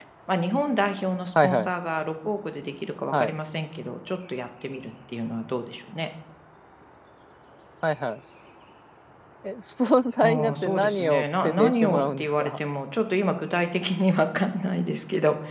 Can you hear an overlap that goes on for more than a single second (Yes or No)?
Yes